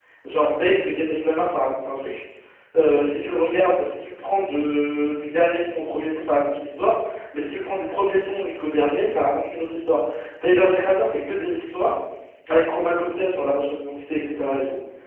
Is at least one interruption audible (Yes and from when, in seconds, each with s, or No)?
No